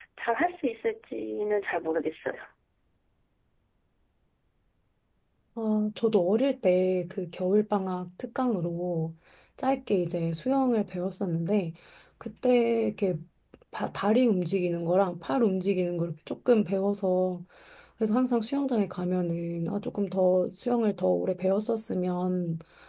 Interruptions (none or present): none